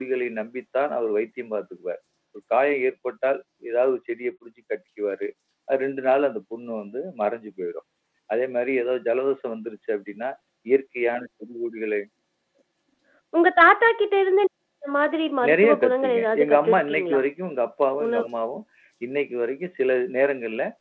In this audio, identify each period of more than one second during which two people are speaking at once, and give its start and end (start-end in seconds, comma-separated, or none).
15.5-17.2